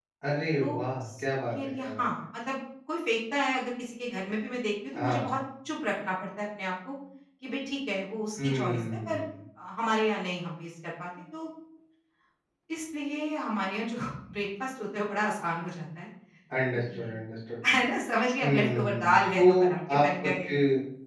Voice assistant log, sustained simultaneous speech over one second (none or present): present